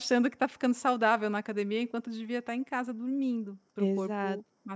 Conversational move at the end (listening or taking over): taking over